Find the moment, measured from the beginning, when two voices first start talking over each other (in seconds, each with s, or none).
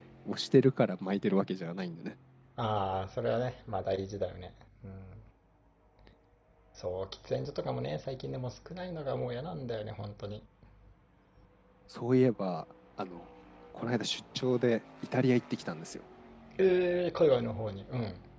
none